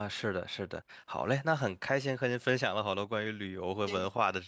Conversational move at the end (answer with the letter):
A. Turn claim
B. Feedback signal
B